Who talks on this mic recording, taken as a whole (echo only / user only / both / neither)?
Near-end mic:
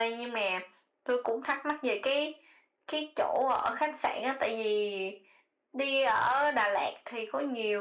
echo only